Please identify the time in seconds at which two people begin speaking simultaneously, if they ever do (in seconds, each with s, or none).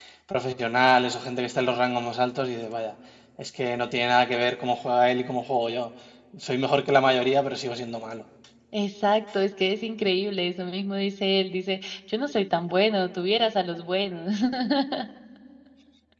none